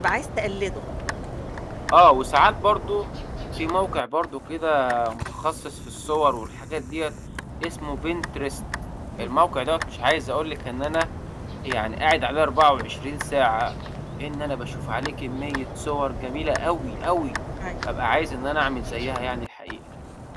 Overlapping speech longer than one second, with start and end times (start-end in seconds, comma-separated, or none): none